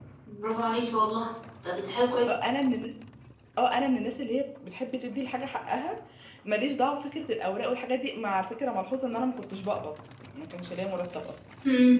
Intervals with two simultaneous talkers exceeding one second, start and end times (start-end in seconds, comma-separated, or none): none